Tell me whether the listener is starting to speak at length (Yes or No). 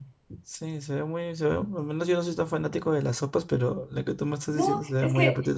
Yes